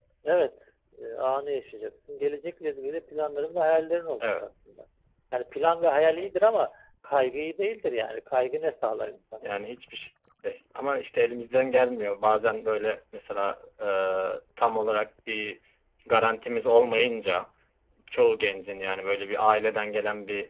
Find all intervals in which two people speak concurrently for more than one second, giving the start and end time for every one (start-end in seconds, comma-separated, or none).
none